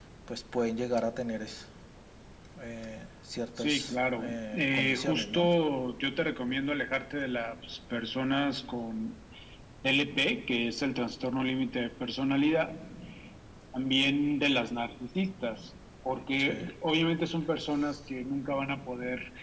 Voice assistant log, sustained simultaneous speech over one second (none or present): present